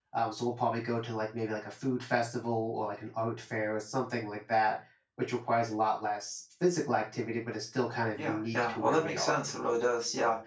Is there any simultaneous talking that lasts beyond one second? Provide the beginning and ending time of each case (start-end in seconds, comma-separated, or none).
8.1-9.5